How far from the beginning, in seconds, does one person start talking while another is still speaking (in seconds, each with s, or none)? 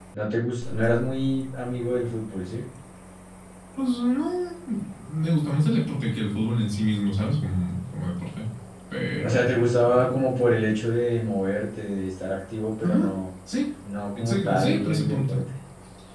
9.2 s